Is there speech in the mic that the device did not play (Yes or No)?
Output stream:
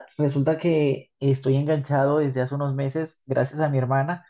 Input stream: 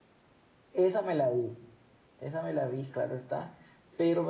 Yes